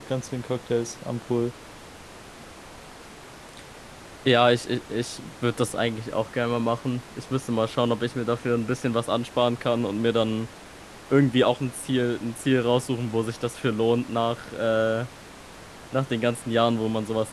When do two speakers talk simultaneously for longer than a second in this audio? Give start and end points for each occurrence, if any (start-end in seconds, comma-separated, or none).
none